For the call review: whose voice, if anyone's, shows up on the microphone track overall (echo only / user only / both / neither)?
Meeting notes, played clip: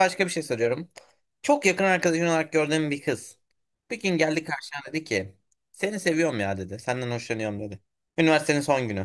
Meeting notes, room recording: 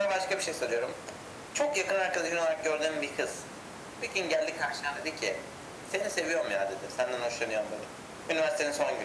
echo only